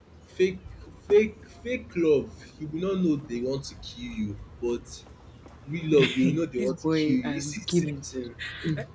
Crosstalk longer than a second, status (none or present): present